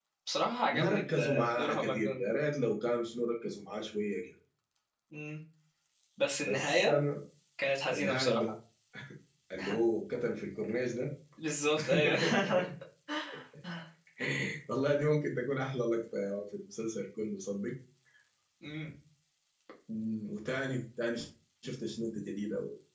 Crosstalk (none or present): present